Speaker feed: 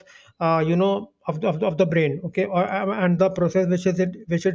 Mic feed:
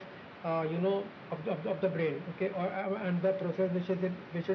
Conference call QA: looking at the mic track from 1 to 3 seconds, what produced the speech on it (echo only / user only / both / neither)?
echo only